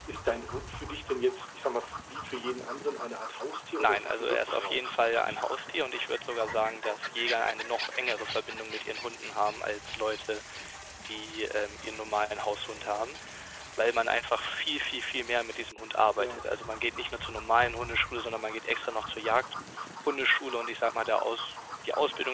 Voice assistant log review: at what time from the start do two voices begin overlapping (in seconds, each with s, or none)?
3.8 s